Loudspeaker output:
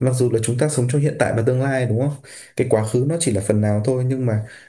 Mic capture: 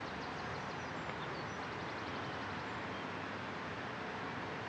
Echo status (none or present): none